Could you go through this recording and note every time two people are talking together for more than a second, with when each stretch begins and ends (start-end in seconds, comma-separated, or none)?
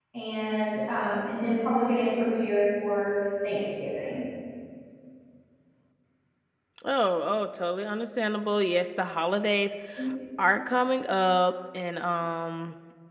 none